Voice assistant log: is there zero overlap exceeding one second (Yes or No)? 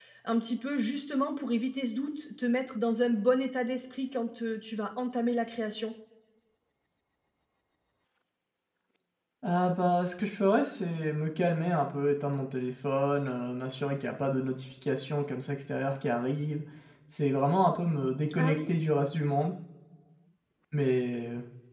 Yes